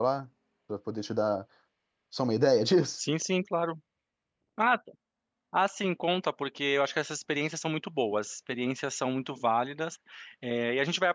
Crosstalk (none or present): none